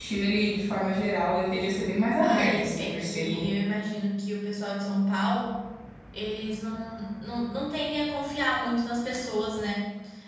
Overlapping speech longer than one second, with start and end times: 2.2-3.4

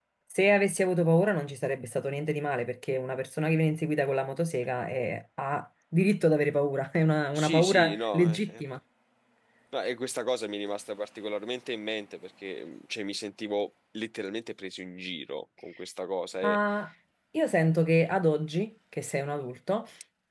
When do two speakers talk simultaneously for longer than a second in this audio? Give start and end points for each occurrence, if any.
7.3-8.6

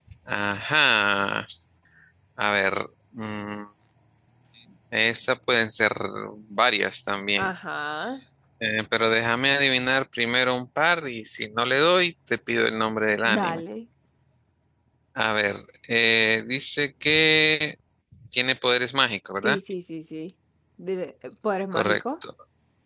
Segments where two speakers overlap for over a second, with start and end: none

